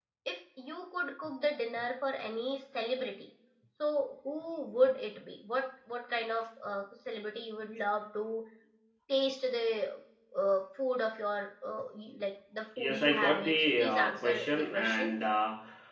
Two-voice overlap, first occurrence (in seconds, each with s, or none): 12.8 s